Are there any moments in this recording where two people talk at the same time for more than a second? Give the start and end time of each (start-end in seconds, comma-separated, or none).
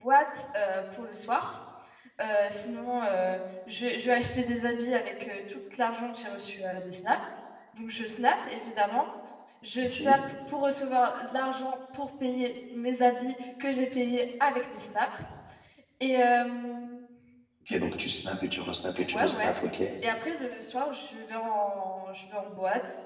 none